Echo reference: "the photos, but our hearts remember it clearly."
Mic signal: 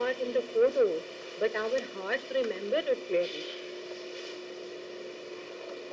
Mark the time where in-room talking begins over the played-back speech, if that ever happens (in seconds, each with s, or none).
none